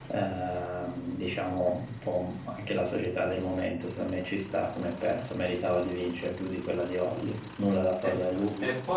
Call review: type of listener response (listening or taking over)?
taking over